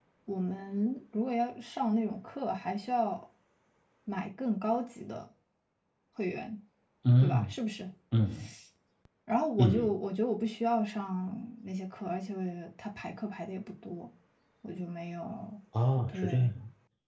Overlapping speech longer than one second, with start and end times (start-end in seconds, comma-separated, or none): none